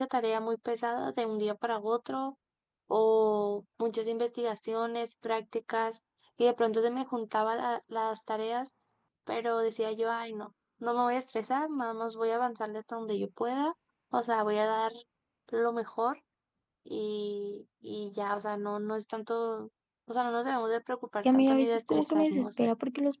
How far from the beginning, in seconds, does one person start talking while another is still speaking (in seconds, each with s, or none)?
21.2 s